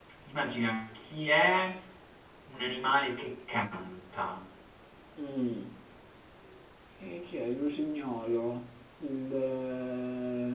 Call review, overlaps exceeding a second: none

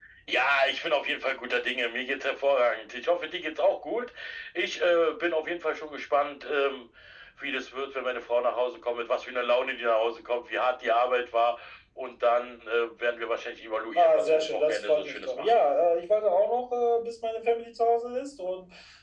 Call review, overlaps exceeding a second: present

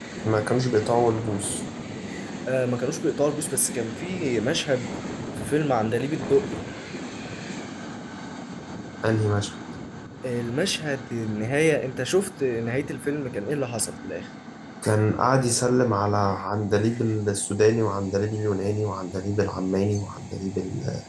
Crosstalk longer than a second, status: none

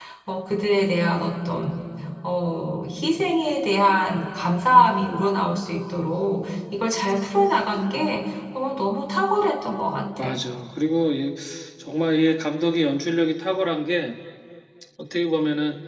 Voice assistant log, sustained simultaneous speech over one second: none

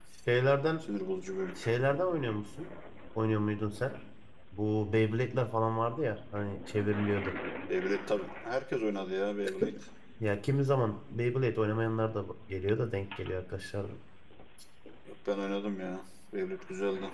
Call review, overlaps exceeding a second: none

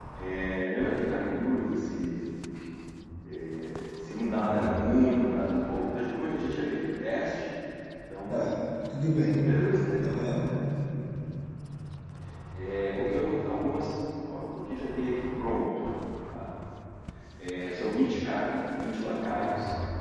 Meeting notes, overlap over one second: none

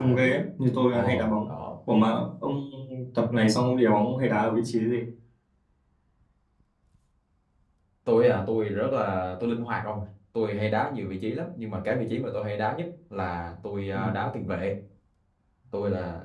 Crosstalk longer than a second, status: none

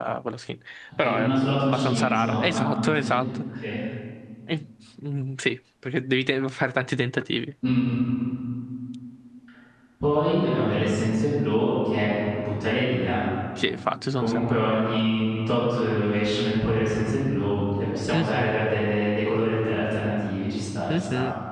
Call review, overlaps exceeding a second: present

